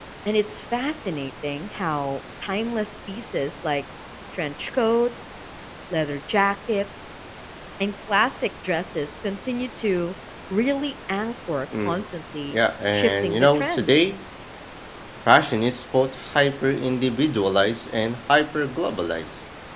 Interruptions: present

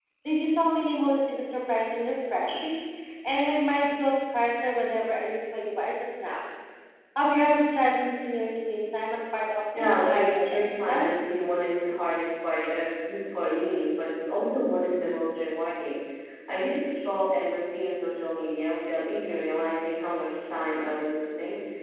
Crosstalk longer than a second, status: present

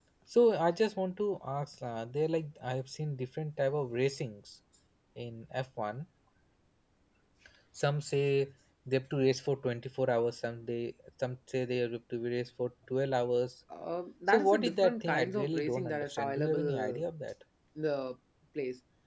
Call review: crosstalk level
present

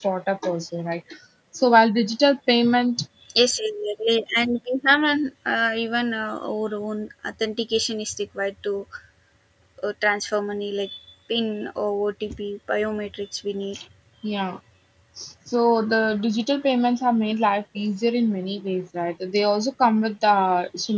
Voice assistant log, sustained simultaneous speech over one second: none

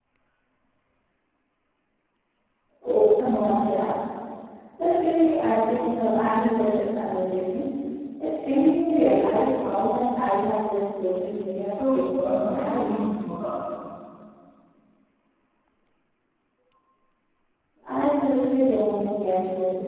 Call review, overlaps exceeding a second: present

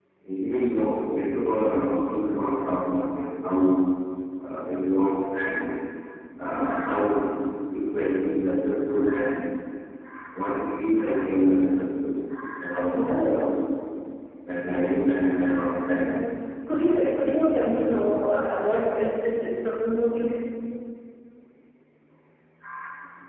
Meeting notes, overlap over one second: none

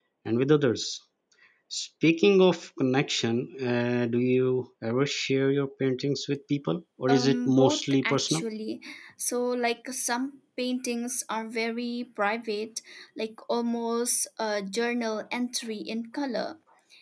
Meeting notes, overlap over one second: present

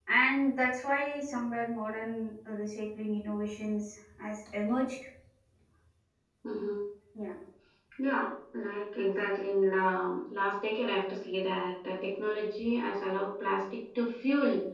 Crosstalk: none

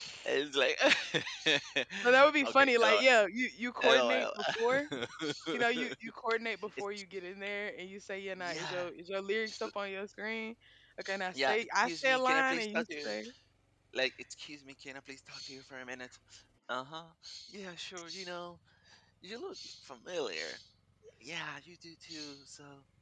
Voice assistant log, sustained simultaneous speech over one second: present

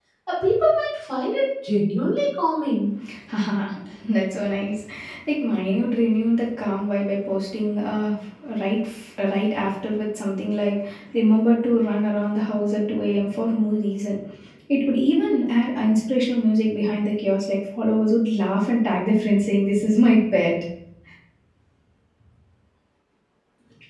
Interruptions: none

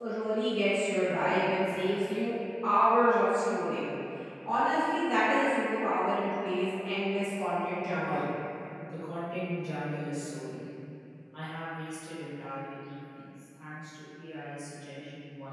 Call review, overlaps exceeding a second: none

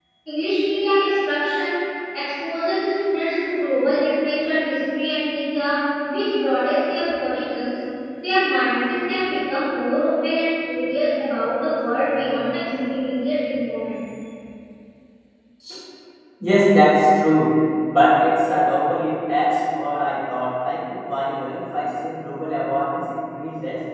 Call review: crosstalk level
none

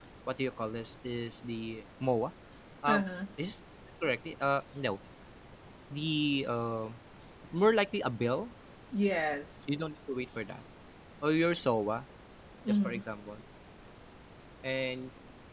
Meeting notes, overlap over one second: none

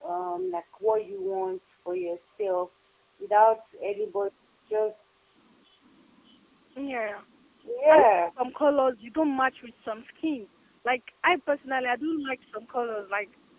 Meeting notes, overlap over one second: none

